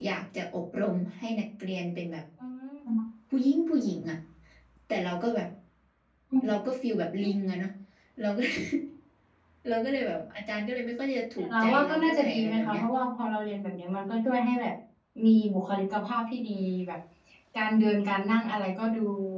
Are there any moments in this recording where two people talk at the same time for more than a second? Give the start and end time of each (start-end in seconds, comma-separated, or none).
11.4-12.8